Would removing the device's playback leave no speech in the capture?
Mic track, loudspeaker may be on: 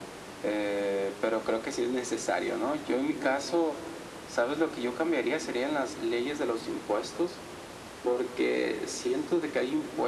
Yes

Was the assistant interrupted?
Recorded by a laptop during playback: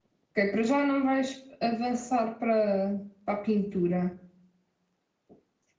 Yes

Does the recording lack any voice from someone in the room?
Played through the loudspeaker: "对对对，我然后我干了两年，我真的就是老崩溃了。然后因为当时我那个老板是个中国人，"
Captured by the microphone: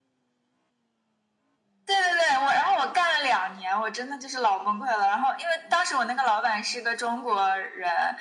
Yes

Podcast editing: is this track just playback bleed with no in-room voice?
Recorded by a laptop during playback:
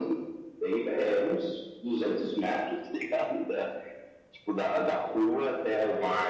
Yes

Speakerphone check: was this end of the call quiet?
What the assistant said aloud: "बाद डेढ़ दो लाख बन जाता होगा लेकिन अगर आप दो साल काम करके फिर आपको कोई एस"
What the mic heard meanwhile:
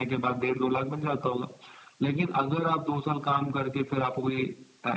Yes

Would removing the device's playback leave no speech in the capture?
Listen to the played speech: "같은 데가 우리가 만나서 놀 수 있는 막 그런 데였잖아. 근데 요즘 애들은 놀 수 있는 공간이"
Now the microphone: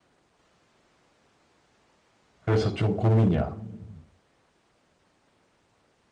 No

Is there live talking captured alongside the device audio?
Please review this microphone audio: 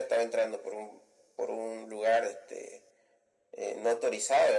No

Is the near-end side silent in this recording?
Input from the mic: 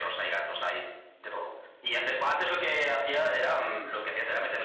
Yes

